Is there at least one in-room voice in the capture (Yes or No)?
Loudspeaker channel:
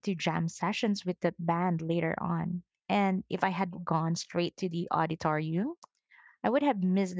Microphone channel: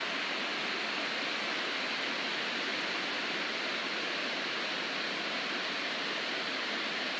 No